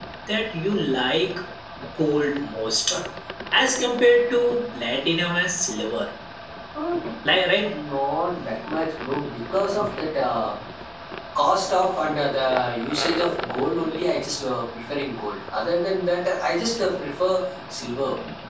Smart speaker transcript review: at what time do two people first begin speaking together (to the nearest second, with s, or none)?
none